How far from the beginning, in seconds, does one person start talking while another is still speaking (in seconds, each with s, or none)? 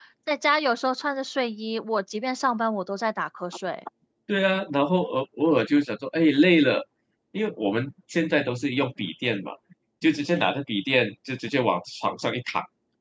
none